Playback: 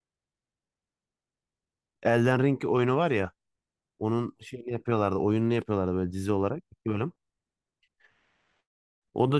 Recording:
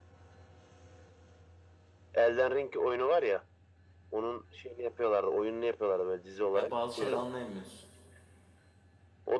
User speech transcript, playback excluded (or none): ya bazı şeyler anlayamıyoruz.